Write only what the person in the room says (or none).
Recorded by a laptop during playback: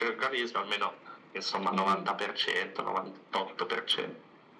Mm.